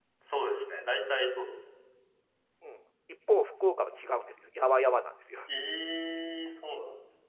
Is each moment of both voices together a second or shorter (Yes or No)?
Yes